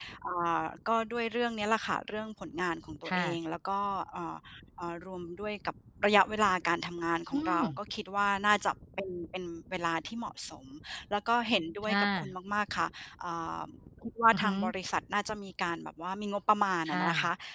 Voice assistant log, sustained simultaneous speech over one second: none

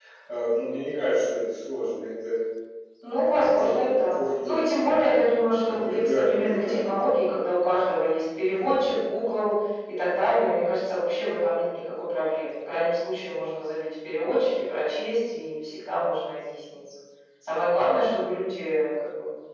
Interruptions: present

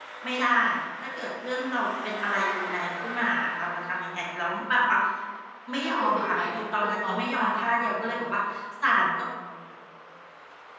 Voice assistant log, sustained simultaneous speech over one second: present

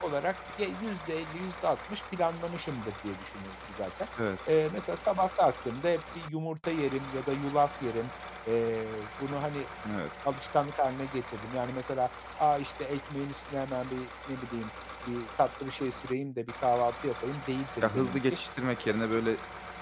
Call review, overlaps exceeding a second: none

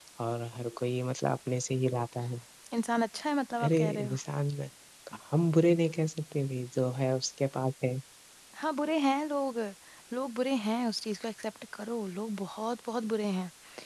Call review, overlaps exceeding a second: none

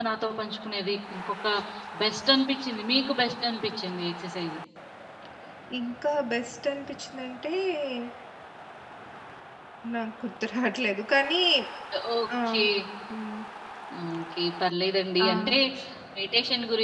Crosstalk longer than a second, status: none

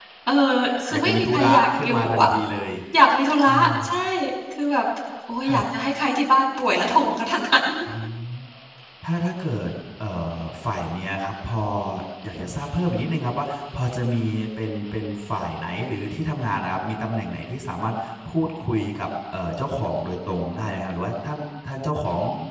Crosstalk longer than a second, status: present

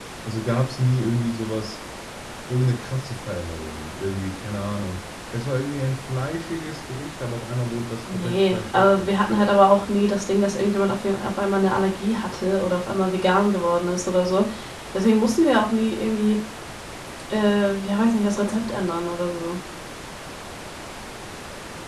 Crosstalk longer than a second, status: present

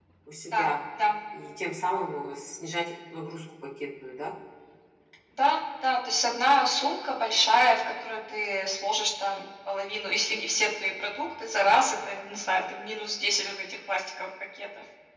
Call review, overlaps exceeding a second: none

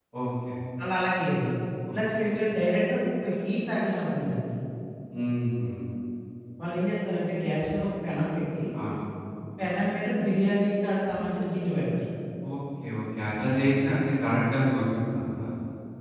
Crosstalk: none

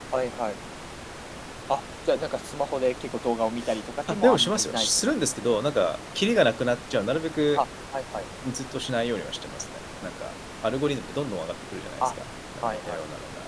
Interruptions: present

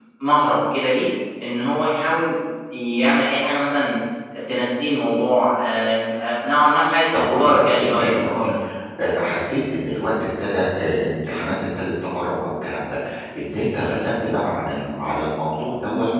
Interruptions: present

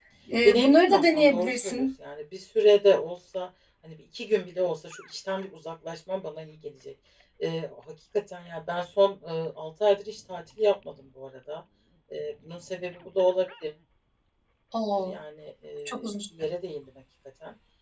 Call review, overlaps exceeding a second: present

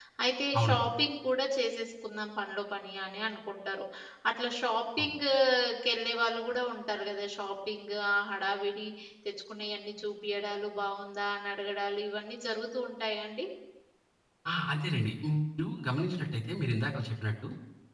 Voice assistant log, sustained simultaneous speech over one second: none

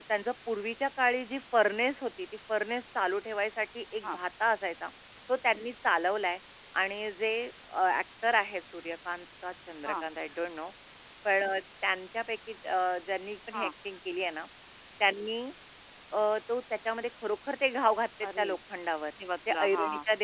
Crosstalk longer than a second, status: none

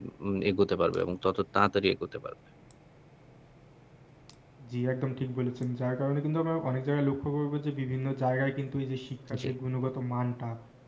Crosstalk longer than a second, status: none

